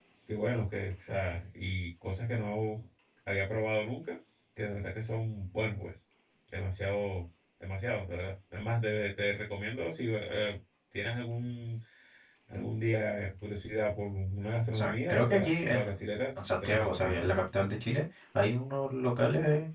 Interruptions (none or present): present